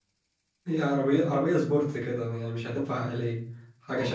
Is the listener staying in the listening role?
No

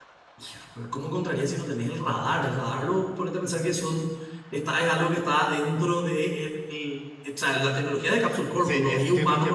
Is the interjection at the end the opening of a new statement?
Yes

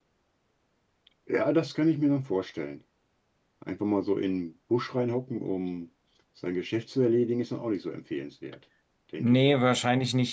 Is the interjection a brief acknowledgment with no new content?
No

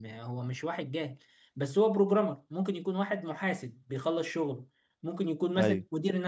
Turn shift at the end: No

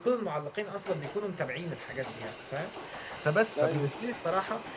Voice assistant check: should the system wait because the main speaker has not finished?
Yes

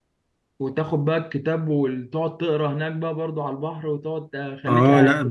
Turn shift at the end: Yes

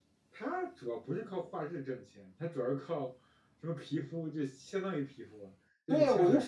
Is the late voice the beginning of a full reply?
Yes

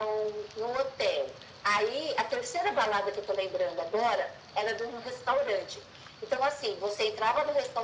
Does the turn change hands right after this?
No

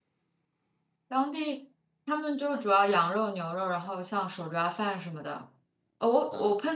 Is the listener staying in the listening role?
Yes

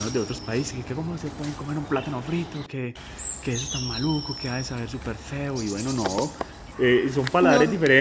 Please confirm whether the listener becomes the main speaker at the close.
No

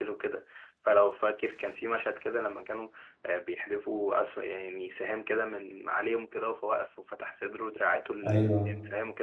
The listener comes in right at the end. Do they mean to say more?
Yes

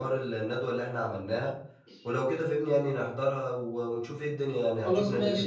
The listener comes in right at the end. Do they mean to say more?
Yes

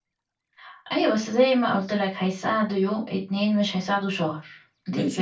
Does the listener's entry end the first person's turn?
Yes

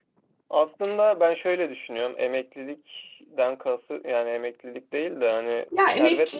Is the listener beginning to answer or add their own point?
Yes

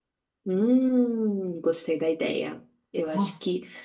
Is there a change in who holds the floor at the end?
No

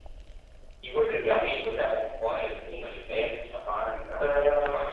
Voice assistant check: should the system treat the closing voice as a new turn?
Yes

